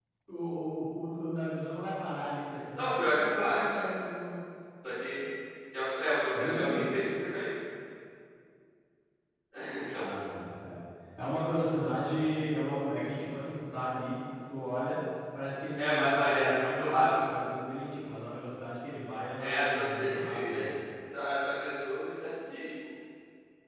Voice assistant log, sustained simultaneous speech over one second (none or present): present